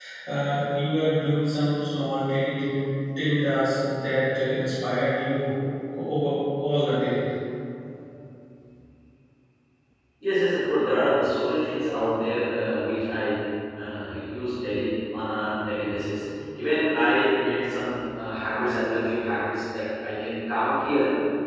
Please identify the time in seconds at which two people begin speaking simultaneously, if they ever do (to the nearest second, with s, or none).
none